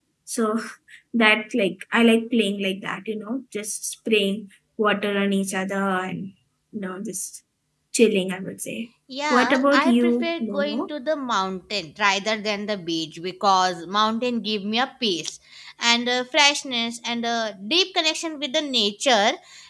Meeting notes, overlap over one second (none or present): present